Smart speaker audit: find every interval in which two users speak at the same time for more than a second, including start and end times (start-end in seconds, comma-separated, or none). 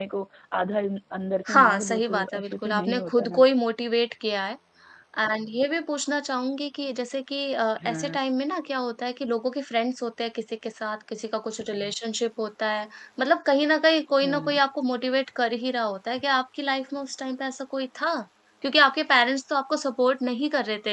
1.5-3.5